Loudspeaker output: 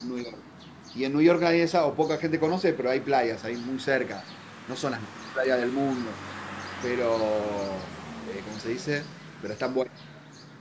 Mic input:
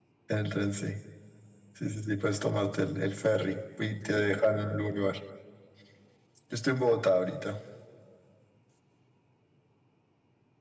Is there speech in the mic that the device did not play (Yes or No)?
Yes